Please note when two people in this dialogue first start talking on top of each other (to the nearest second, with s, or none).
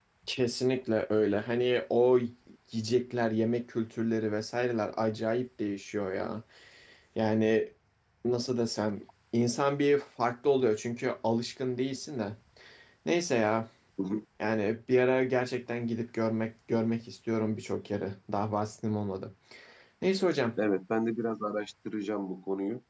none